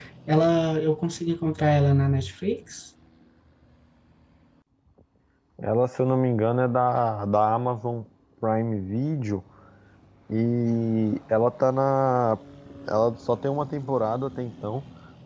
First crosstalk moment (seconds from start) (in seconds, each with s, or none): none